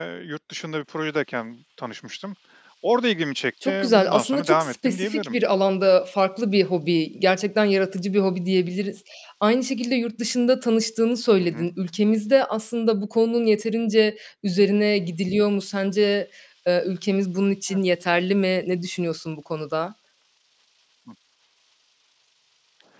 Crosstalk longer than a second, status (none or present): present